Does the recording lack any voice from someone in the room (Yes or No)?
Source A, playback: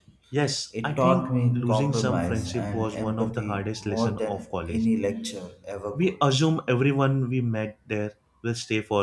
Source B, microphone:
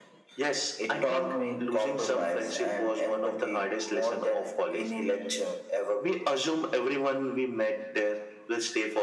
Yes